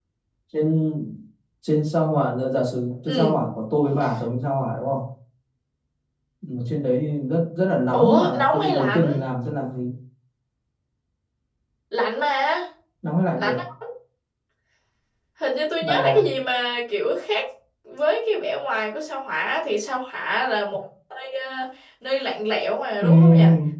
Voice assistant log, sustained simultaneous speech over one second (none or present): present